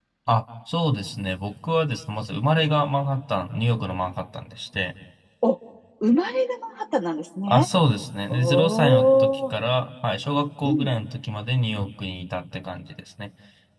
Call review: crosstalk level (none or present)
present